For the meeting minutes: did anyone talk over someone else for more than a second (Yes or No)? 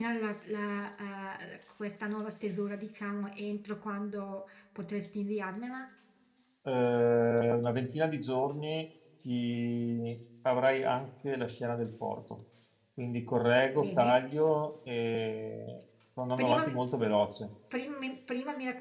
No